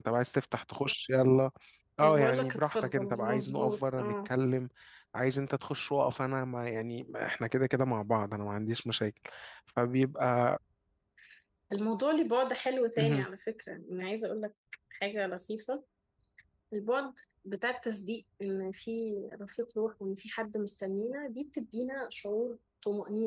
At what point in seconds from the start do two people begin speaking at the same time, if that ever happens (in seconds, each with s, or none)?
2.0 s